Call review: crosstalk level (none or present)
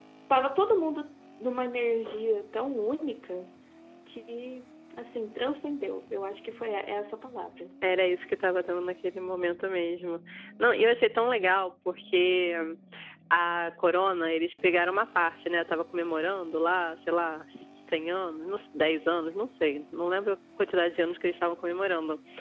none